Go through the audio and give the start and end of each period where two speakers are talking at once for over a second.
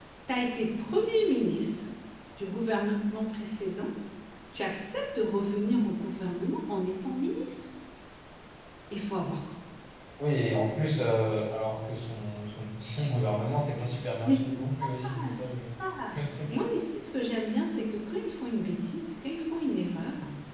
14.2-15.5

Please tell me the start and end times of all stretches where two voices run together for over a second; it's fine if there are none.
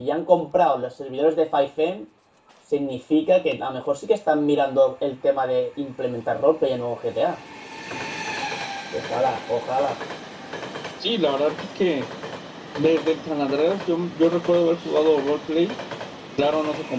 none

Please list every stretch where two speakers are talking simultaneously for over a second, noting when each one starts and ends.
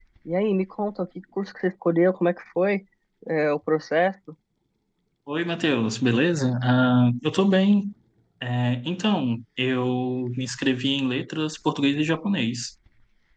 none

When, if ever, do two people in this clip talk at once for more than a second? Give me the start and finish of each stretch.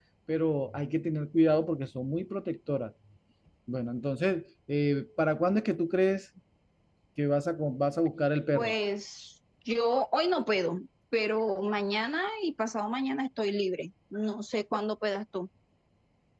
none

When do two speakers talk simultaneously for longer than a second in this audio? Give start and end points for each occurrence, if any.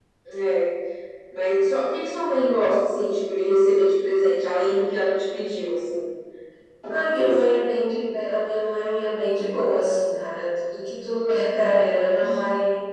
none

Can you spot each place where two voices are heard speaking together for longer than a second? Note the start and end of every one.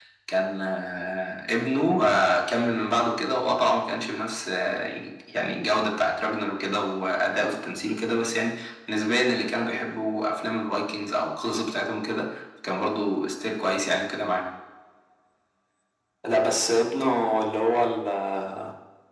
none

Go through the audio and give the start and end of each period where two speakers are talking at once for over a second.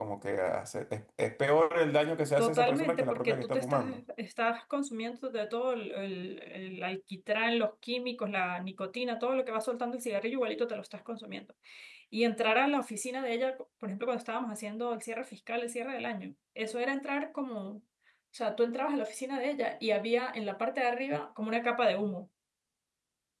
2.4-3.8

